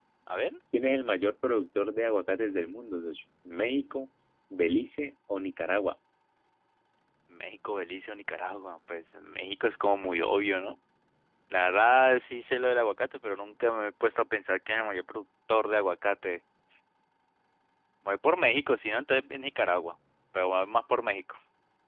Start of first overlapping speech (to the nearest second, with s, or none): none